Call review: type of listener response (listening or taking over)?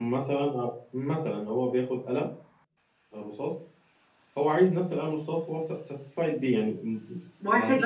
taking over